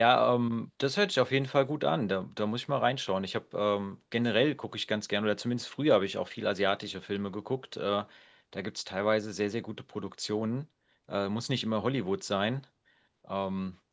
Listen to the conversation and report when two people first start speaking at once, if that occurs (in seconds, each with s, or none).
none